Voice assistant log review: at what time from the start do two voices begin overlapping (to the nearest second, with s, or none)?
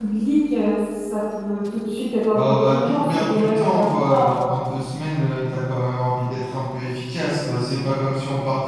2 s